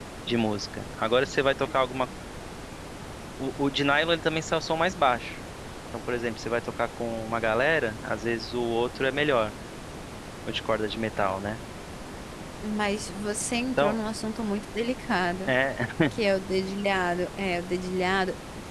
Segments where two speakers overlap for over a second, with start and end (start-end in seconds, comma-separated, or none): none